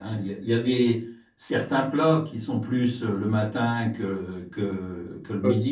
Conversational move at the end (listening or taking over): taking over